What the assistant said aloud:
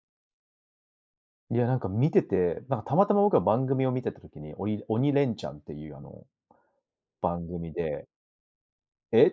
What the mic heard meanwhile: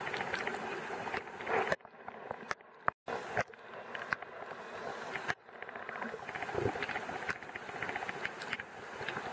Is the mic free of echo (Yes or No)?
Yes